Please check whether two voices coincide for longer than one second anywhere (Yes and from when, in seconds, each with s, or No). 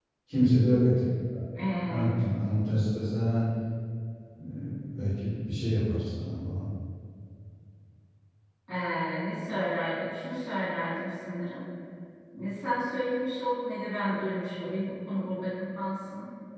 No